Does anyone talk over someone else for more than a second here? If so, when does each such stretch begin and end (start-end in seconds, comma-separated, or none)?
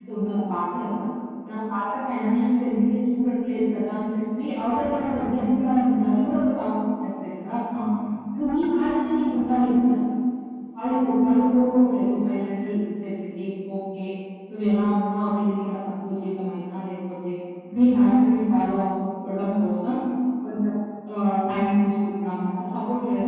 4.9-6.3